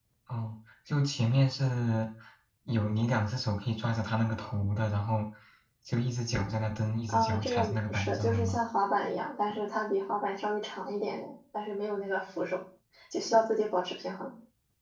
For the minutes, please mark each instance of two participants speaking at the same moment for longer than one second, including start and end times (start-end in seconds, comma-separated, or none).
7.1-8.6